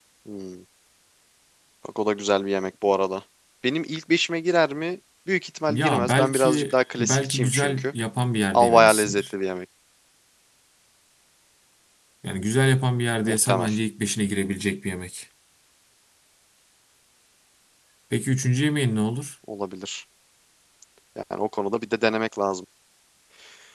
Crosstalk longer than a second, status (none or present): present